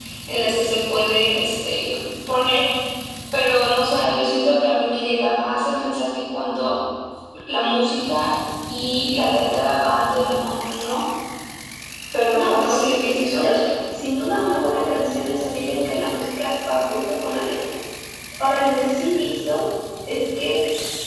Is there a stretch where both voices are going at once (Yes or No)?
Yes